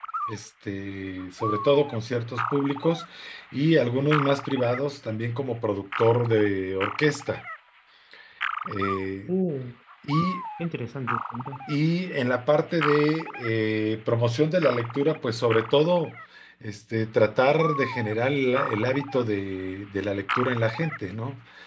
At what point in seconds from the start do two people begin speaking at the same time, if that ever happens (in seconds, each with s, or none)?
none